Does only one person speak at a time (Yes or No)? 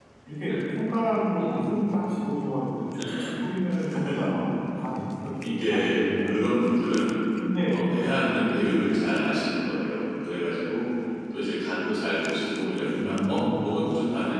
No